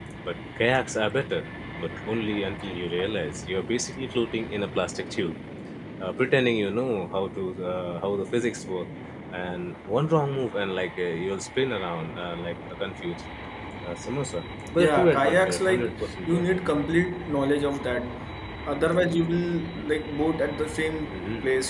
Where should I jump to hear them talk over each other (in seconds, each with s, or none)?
14.8 s